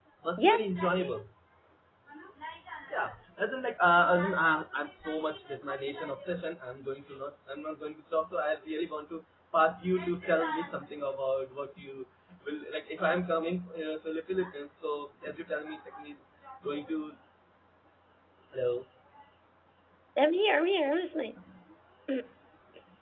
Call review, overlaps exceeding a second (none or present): none